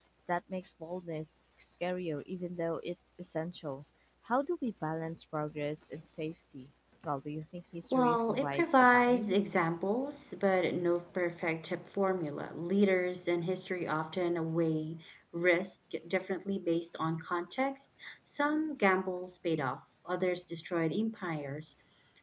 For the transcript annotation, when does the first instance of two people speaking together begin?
8 s

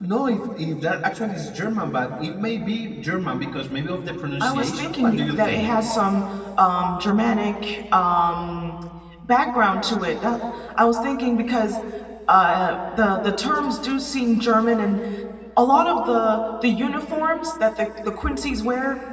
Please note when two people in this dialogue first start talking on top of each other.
4 s

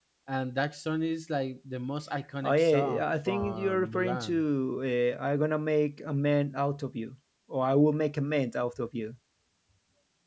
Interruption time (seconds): 2 s

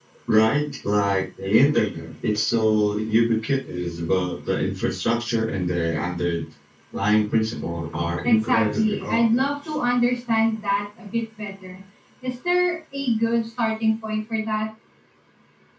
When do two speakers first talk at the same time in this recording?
8 s

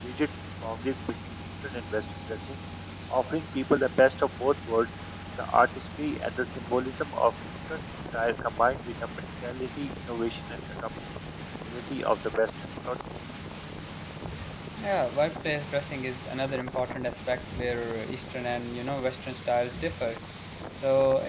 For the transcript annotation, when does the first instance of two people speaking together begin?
none

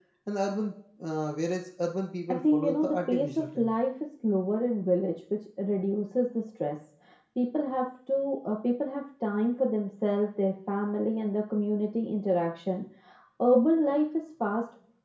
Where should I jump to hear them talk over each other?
2 s

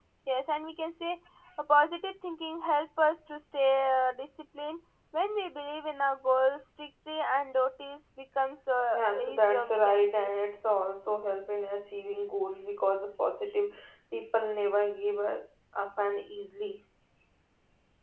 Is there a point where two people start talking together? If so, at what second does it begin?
9 s

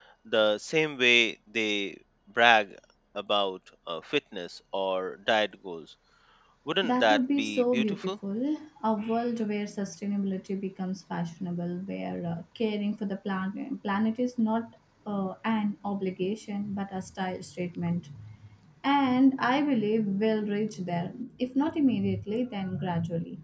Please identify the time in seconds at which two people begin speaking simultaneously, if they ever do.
7 s

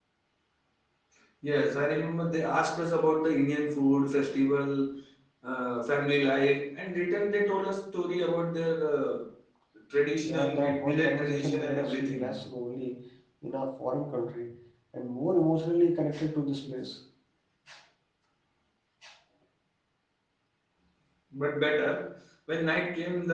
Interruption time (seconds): 10 s

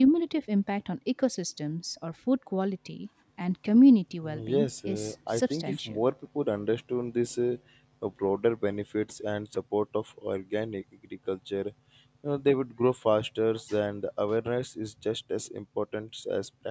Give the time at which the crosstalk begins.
4 s

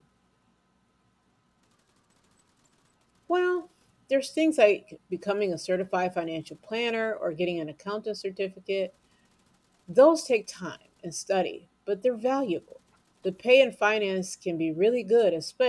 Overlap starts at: none

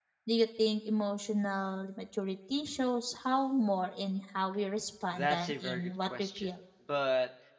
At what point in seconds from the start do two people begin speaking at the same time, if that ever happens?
5 s

